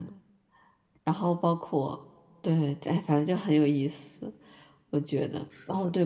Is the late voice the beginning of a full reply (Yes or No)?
No